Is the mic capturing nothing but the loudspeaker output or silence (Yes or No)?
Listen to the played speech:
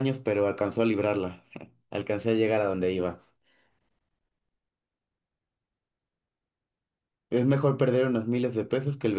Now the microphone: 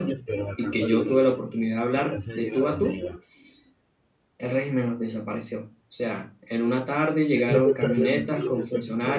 No